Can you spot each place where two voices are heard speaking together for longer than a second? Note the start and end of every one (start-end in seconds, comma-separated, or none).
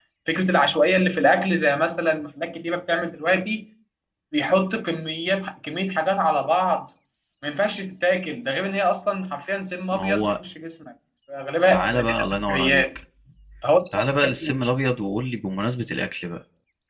11.7-13.0